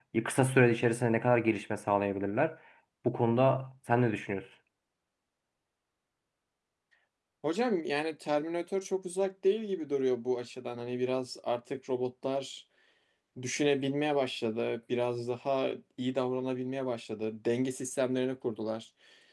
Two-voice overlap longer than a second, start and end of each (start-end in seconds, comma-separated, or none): none